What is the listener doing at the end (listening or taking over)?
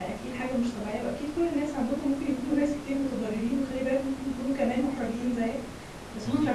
listening